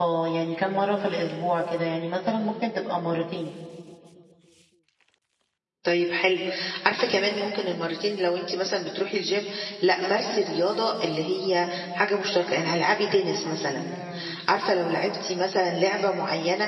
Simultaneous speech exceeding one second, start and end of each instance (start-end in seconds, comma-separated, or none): none